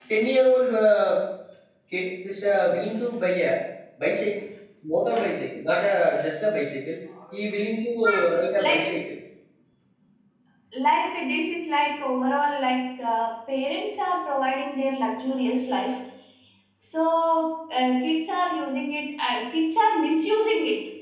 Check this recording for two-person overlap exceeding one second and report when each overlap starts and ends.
none

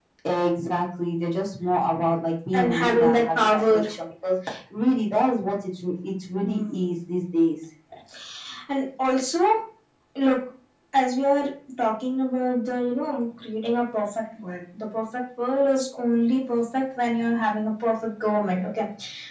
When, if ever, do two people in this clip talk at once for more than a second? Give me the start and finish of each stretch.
2.5-3.8

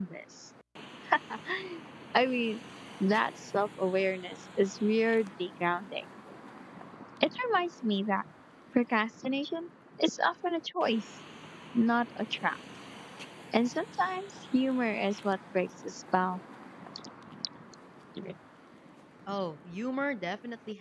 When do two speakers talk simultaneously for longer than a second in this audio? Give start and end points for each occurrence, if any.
none

